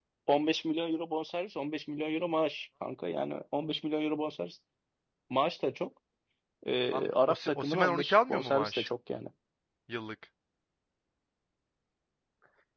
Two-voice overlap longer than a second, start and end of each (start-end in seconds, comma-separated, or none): 6.9-8.9